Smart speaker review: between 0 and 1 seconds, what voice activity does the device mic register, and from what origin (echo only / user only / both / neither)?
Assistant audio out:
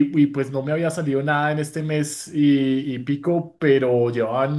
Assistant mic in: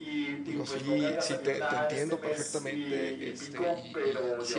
both